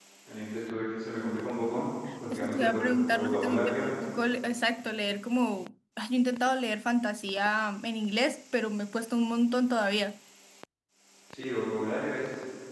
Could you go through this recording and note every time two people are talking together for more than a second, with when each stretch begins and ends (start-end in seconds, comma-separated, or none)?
2.3-3.9